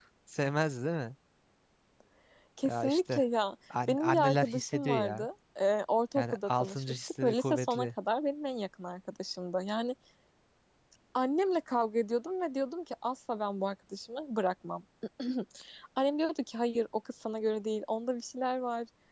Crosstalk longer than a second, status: present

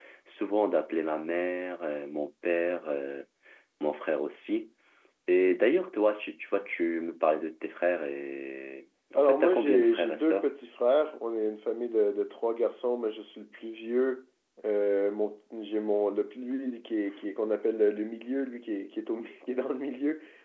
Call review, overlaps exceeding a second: present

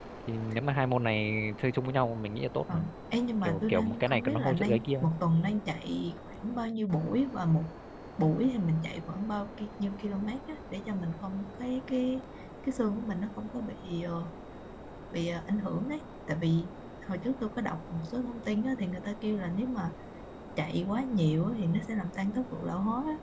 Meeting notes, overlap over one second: present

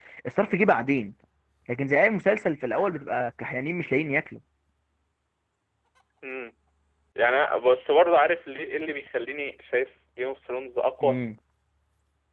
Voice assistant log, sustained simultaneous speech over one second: none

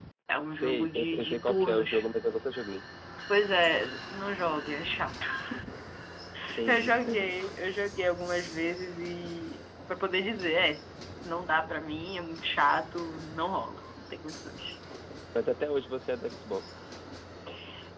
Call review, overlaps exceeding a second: present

